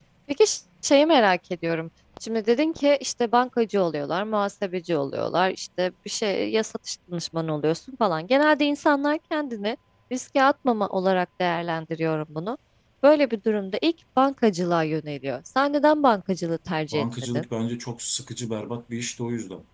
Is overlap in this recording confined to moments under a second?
Yes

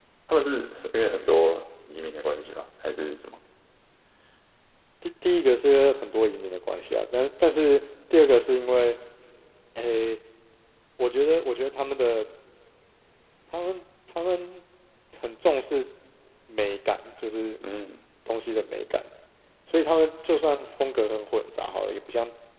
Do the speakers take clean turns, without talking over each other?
Yes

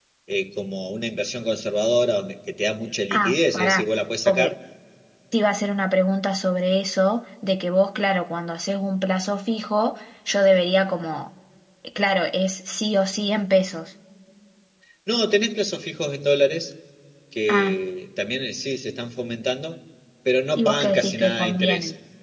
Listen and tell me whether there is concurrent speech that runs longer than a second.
Yes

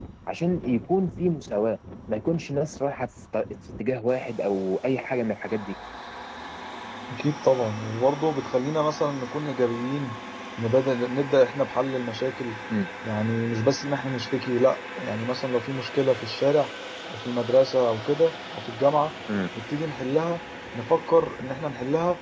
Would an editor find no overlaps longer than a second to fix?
Yes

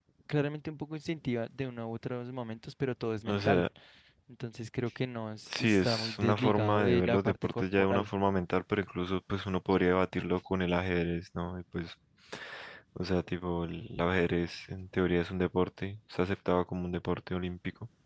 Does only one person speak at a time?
No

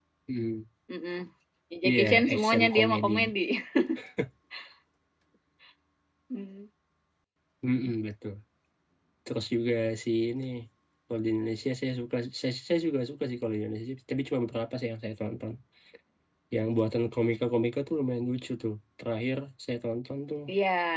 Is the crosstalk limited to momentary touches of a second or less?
No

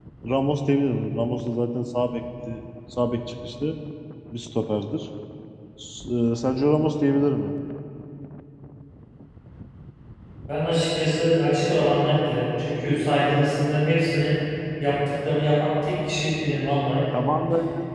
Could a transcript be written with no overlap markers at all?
Yes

